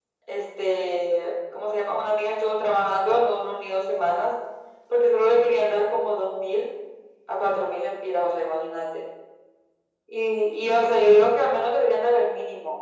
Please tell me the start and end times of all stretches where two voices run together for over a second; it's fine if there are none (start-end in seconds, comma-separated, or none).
none